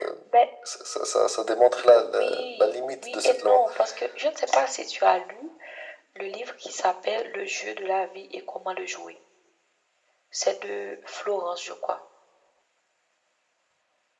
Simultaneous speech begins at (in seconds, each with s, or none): 1.9 s